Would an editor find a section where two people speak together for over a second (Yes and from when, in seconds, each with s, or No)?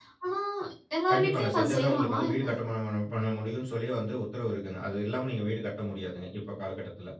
Yes, from 1.1 s